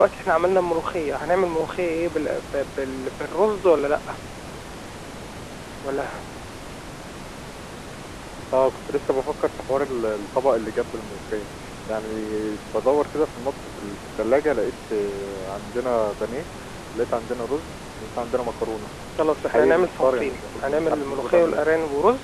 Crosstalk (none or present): present